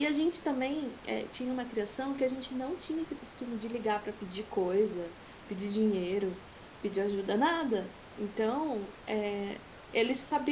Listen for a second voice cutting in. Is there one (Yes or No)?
No